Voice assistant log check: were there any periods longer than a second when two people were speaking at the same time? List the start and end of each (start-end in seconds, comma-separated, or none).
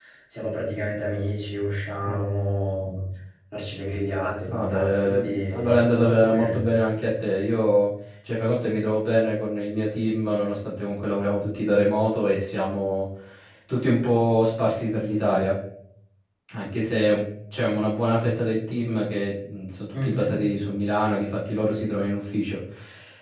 4.5-6.6